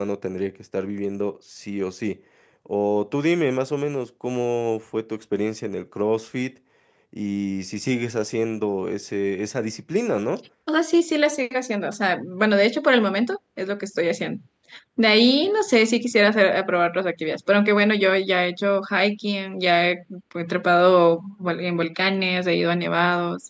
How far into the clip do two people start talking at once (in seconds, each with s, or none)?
none